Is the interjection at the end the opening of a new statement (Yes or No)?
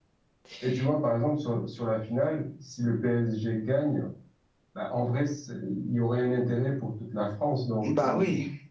Yes